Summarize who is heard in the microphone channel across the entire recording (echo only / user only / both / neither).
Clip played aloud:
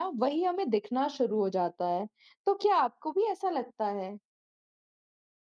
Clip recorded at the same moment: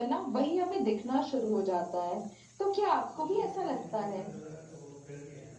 both